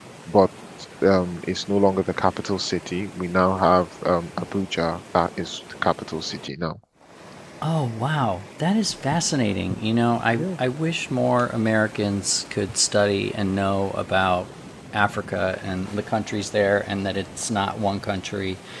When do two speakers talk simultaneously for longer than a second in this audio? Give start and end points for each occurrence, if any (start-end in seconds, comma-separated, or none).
none